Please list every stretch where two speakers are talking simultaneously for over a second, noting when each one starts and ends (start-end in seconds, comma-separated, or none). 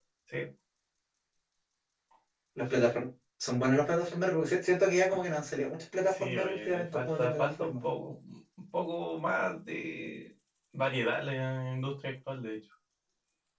6.1-7.8